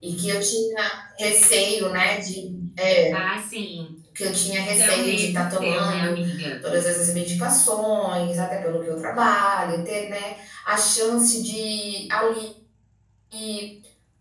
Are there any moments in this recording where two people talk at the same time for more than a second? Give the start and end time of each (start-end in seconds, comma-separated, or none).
4.6-6.2